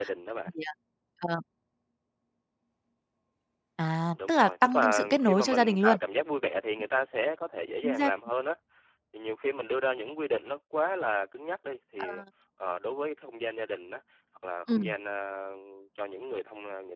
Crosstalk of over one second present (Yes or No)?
Yes